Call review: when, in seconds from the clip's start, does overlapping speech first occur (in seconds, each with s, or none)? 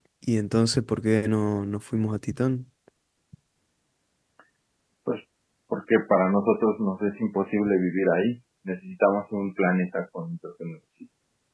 none